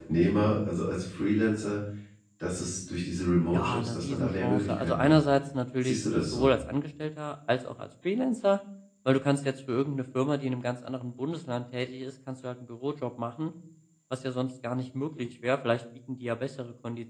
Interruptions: present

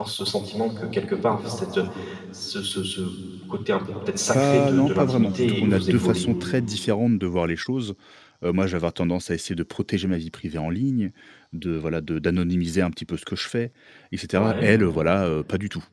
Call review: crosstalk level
present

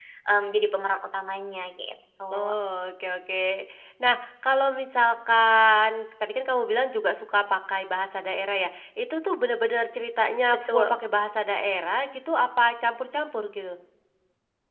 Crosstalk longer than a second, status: none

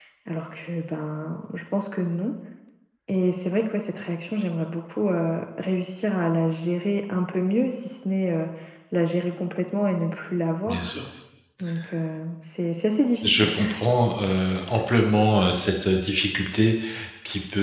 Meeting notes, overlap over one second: none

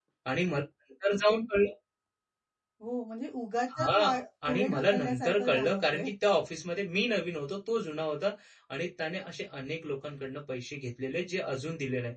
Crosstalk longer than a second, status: present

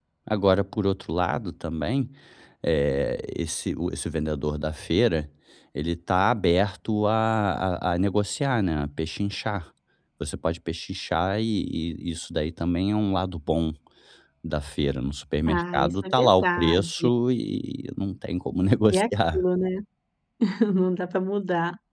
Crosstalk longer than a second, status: present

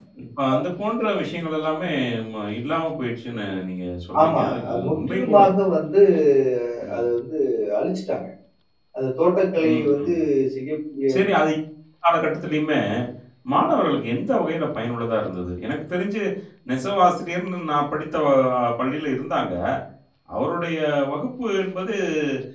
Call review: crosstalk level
present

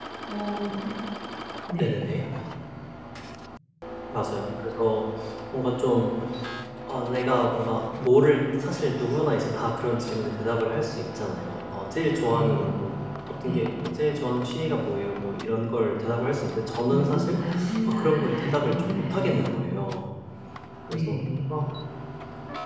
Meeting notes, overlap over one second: present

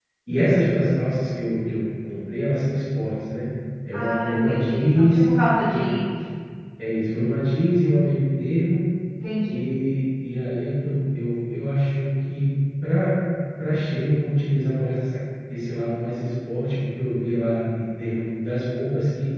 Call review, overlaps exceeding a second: present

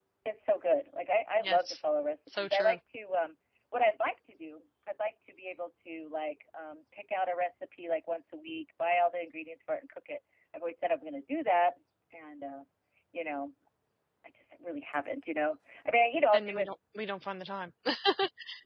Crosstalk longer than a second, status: none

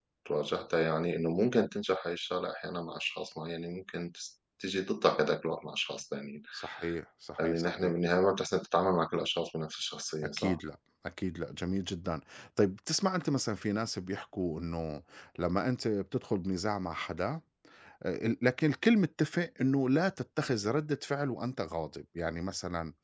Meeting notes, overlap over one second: none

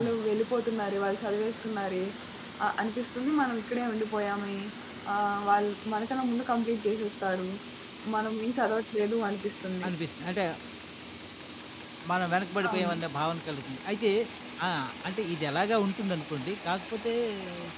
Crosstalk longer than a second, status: none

